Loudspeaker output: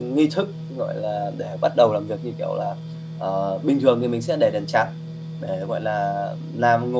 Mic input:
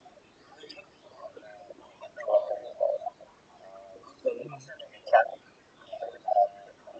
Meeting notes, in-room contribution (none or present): present